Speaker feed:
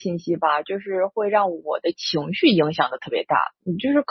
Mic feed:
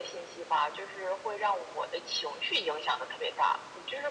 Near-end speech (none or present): none